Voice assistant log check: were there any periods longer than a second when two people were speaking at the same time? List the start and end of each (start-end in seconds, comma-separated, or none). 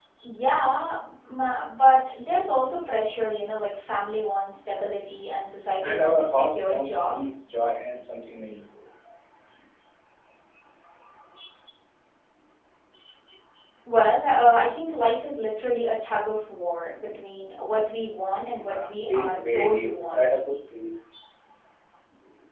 5.8-7.2, 18.6-20.3